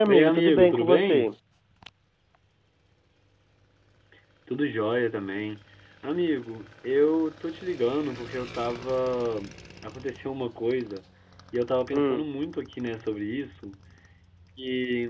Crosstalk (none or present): present